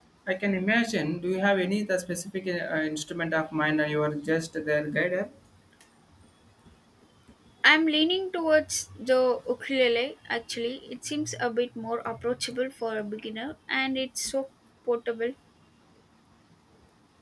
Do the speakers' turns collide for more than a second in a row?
No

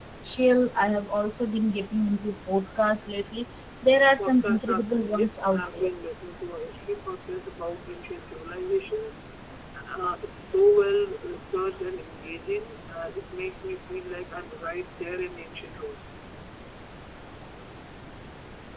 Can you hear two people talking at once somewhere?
Yes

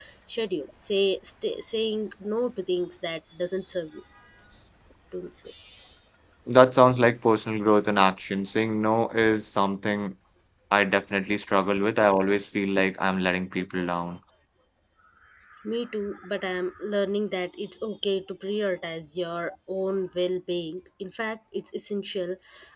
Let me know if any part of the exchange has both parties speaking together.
No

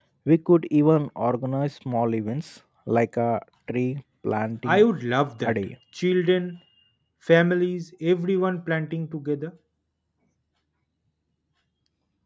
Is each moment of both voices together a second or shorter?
Yes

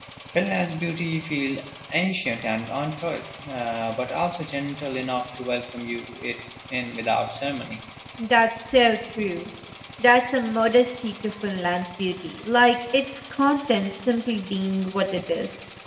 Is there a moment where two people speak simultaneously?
No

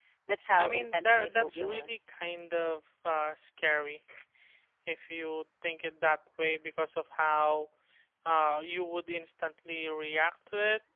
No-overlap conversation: No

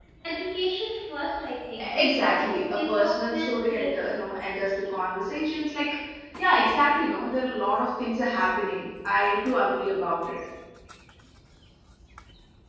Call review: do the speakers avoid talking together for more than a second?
No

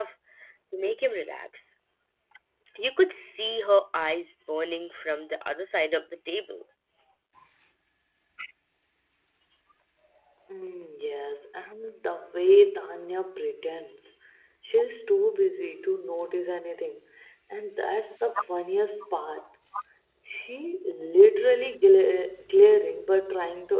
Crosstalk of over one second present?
No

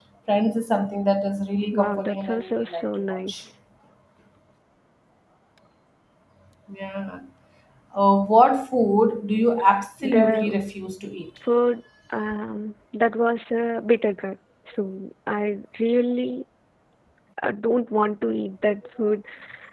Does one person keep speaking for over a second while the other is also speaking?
Yes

